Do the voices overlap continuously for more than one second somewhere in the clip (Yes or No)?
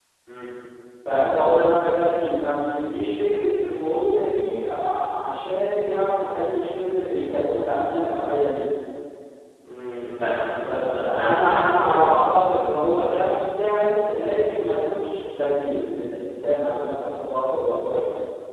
Yes